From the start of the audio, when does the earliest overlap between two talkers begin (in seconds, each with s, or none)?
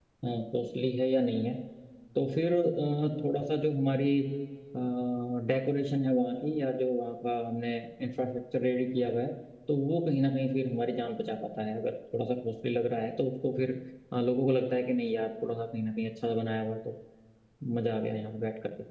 none